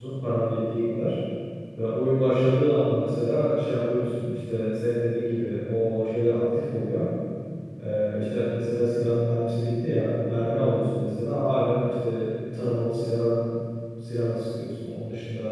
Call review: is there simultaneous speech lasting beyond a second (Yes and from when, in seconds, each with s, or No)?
No